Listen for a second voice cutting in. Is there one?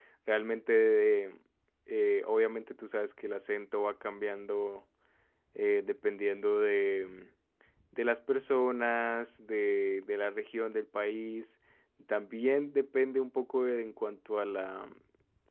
No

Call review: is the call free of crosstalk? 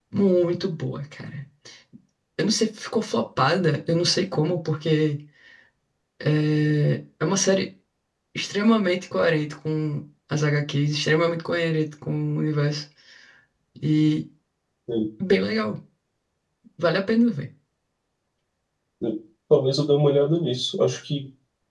Yes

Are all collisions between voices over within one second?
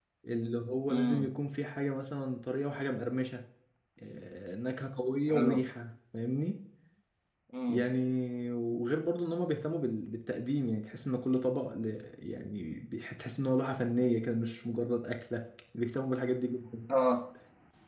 Yes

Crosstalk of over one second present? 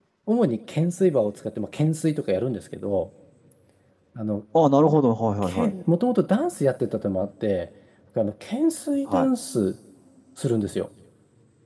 No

